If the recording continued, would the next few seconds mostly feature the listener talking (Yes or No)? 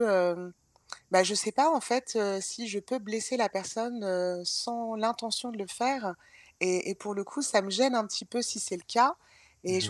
No